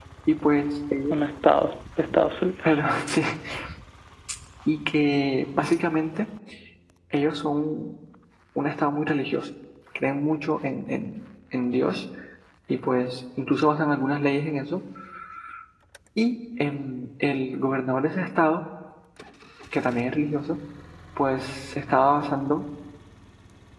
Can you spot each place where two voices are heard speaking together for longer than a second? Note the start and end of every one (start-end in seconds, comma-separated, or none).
none